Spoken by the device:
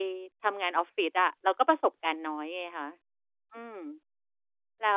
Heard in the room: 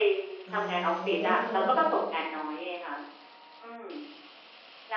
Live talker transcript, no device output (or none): อ๋อ